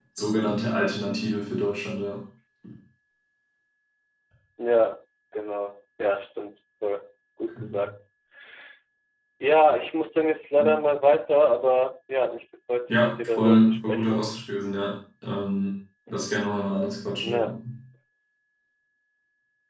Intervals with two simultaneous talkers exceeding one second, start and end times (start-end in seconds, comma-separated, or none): 12.9-14.2